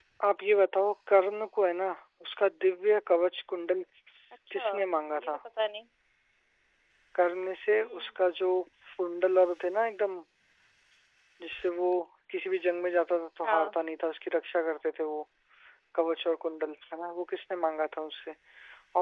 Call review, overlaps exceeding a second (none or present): none